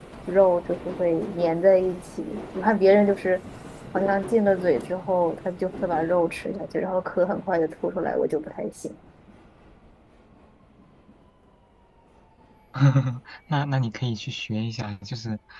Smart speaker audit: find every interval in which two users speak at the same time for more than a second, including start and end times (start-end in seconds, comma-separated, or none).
none